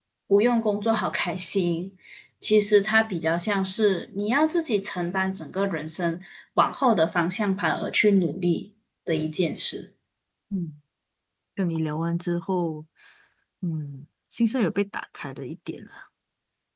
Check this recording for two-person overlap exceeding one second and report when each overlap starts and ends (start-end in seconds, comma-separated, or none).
none